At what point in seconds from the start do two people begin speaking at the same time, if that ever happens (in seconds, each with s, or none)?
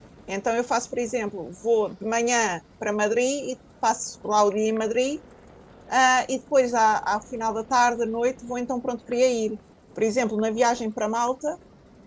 none